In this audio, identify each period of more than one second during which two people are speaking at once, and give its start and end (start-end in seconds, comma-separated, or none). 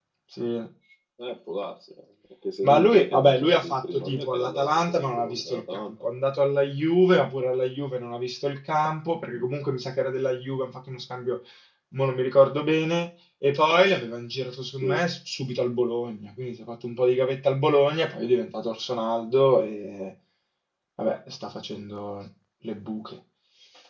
2.6-5.9